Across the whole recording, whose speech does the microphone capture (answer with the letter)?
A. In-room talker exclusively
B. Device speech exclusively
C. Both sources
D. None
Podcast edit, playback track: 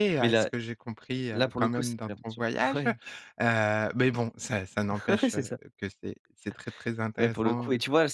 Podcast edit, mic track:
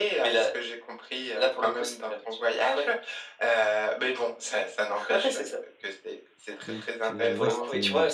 C